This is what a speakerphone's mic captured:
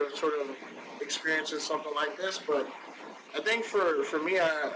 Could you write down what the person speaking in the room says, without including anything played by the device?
none

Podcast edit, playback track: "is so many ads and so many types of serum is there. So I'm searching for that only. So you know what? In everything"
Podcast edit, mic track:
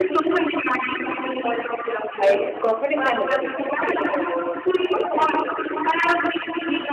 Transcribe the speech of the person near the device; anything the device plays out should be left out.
I cosmetics I never return because I know what to buy, and uh,

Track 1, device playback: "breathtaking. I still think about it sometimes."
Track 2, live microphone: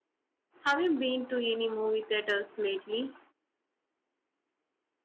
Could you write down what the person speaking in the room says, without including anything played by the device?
have you been to any movie theaters lately?

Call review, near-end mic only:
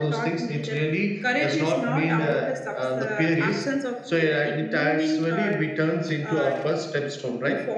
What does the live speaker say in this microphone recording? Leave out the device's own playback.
none

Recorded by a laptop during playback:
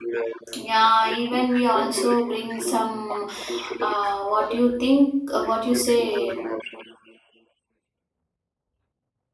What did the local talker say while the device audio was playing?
yeah even we also bring some uh, what you think uh, what you say

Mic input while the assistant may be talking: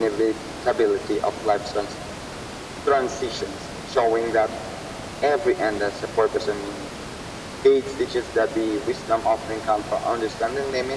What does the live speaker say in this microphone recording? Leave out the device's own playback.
none

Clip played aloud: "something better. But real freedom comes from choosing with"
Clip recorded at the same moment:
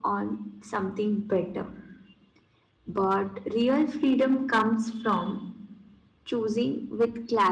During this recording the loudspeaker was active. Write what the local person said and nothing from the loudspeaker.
none

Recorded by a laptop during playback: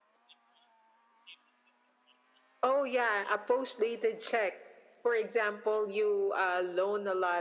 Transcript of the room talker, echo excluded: none

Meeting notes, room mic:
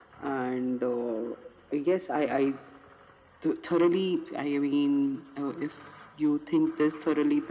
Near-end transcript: none

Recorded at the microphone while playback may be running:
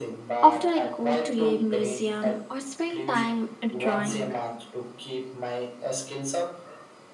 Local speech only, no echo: After I go to a museum or spend time drawing,

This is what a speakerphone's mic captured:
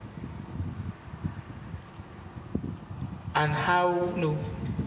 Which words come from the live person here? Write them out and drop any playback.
and how you know

